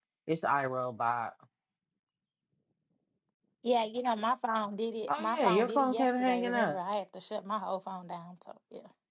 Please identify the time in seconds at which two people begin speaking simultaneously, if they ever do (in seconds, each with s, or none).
5.1 s